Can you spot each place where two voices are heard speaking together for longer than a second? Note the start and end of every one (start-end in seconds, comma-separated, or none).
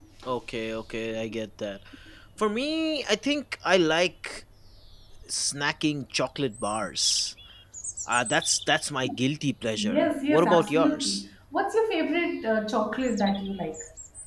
9.8-11.2